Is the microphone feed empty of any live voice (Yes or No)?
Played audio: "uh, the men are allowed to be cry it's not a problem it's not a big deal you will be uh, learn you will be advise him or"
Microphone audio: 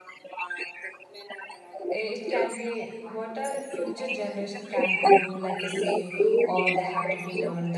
No